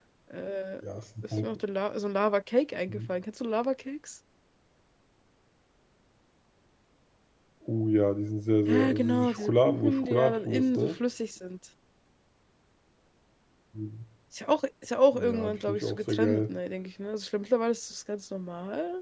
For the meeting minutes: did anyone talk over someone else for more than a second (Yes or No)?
Yes